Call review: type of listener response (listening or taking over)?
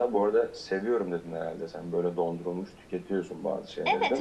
taking over